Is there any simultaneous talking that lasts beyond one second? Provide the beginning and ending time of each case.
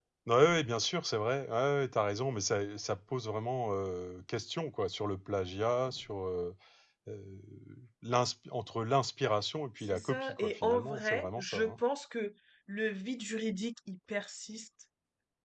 9.9-11.8

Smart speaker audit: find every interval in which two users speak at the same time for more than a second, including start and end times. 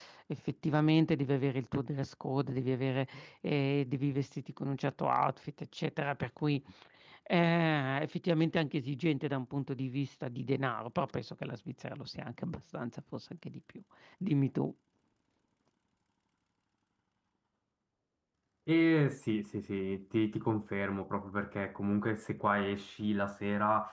none

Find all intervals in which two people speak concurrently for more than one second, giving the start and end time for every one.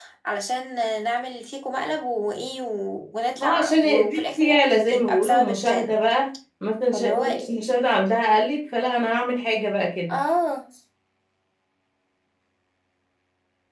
3.4-5.9

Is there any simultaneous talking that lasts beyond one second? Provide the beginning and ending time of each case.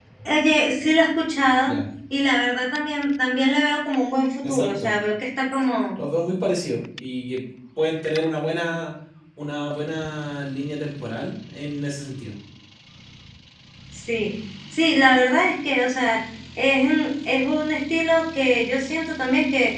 none

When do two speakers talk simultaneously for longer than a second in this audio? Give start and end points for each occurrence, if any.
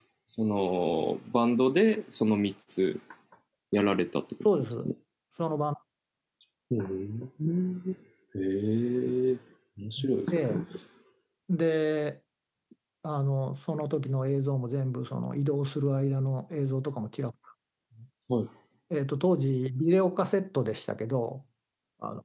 none

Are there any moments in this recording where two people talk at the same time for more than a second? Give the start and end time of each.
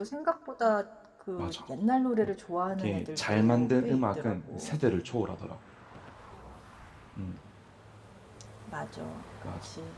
2.8-4.8

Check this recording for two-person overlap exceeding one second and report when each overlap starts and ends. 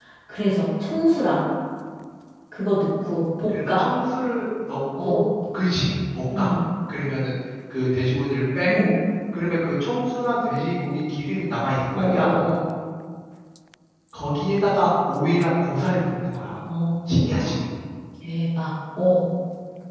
none

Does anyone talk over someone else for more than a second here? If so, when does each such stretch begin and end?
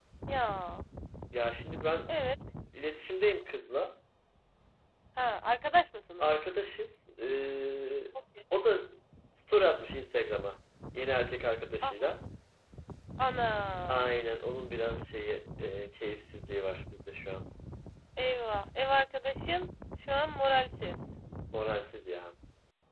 none

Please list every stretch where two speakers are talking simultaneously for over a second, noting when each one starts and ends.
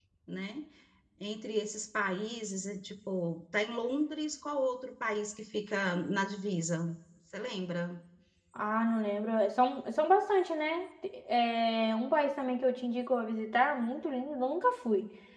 none

